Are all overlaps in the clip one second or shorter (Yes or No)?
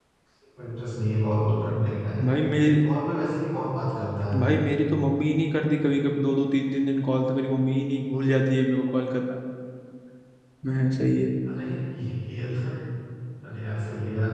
Yes